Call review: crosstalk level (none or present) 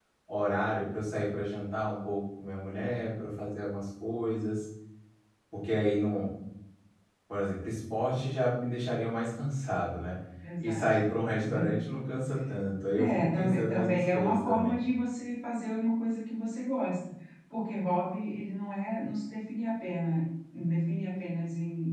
present